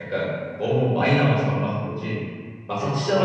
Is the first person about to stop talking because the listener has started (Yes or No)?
No